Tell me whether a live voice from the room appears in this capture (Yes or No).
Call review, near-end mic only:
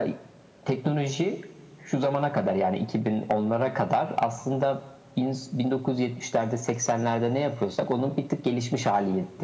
No